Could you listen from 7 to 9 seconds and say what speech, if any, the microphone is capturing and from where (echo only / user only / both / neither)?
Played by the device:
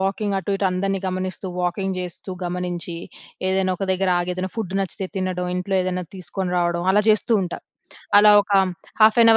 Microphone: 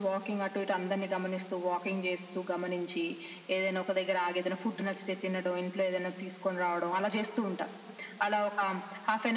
echo only